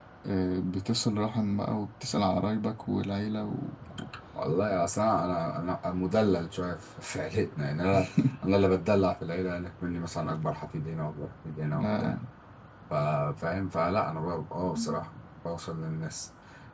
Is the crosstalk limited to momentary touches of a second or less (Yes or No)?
Yes